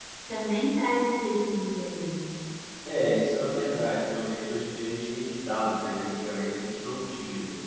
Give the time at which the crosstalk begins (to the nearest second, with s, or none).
none